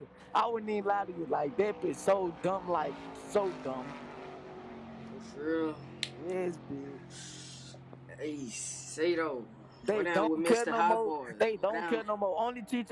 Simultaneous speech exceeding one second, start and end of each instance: 9.9-12.0

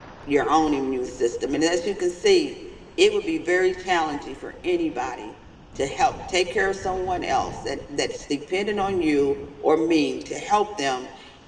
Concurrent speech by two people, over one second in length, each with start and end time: none

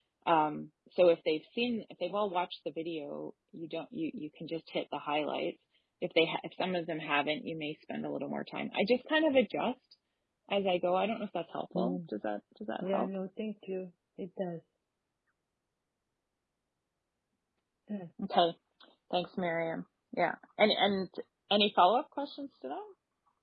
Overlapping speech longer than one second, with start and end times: none

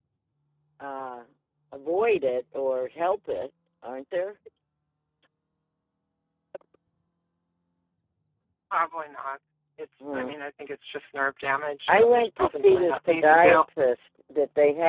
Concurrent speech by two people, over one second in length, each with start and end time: 11.9-13.6

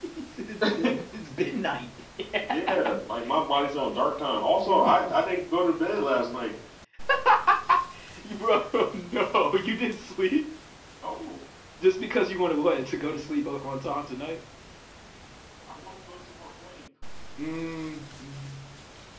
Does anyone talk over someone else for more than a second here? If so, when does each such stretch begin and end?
none

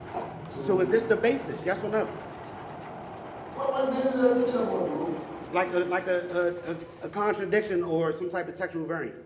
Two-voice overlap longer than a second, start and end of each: none

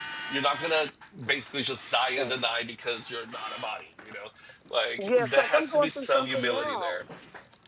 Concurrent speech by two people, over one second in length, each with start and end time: 5.1-7.0

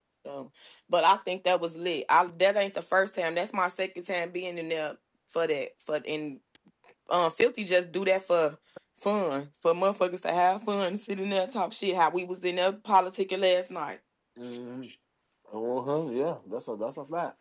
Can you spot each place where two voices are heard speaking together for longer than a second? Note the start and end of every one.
none

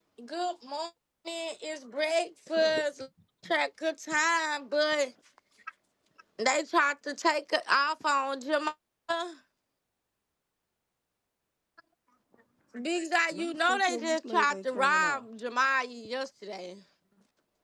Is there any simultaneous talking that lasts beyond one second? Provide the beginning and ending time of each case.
13.3-15.2

